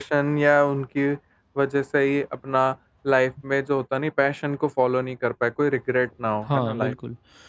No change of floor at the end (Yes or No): No